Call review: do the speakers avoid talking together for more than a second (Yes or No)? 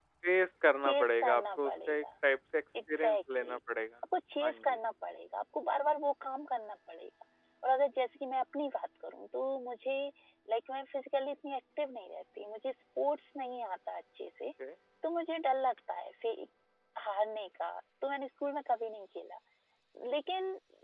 No